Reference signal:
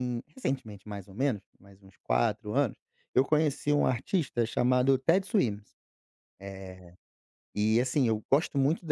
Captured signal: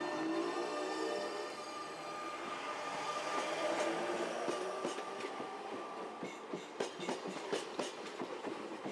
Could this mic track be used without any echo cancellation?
Yes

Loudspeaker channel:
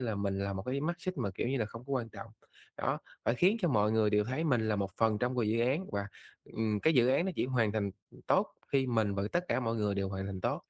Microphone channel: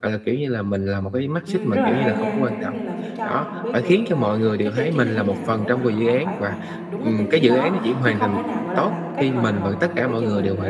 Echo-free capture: No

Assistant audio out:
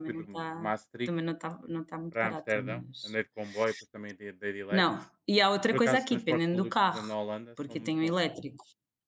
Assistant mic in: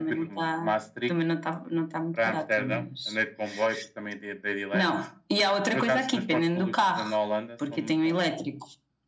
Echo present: Yes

